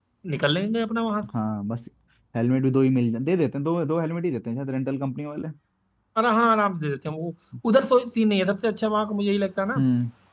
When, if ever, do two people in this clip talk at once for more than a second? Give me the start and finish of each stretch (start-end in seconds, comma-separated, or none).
none